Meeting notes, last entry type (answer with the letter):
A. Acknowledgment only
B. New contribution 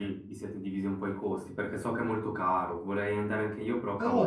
B